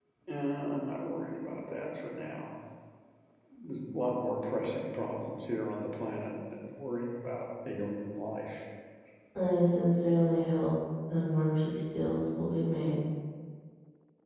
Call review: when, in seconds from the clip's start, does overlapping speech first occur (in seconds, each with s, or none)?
none